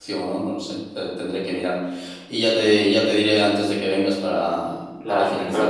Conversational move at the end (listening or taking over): taking over